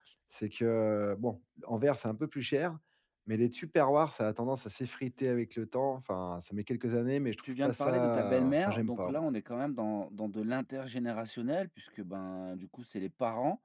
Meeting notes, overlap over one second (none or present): present